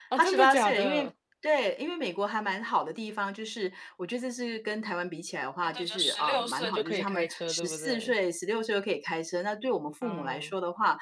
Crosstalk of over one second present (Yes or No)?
Yes